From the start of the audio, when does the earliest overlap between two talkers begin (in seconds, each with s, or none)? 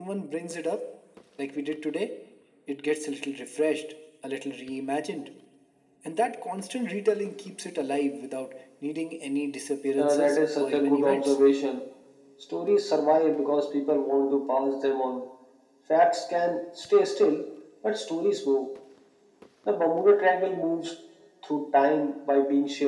10.0 s